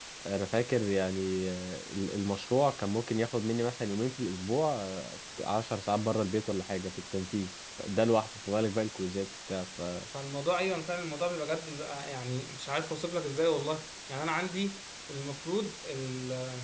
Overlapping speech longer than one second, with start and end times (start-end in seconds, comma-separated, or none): none